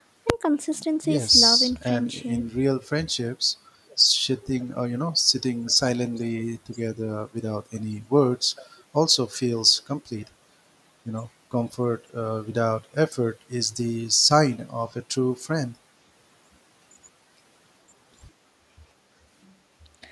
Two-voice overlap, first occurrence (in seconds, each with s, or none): 1.0 s